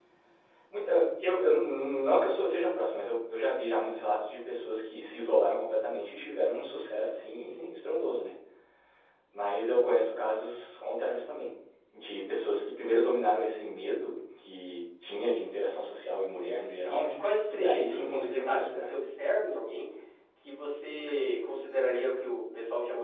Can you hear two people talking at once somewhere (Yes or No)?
Yes